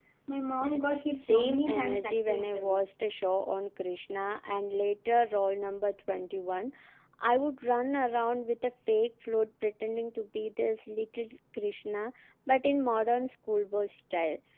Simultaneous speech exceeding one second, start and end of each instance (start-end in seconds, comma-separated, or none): 1.3-2.8